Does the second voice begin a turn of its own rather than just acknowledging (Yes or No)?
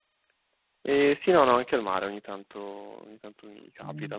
No